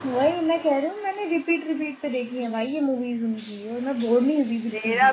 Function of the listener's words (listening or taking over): taking over